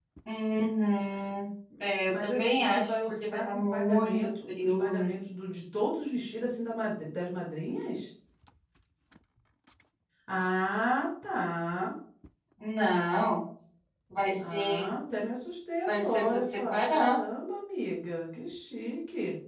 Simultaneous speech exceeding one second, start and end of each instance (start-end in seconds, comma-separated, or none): 2.1-5.2, 15.9-17.2